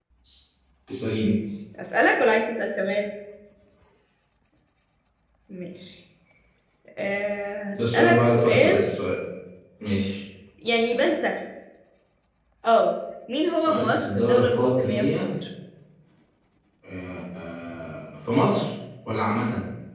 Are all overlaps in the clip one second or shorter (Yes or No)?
No